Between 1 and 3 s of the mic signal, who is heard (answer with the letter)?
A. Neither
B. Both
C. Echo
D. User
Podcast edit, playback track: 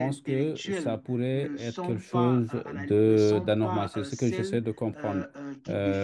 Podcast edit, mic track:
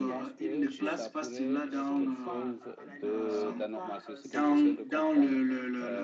B